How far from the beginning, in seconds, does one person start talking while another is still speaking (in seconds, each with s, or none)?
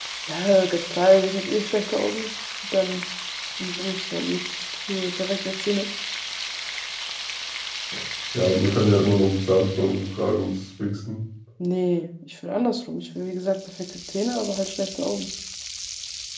none